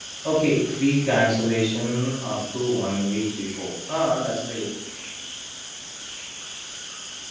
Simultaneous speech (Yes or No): No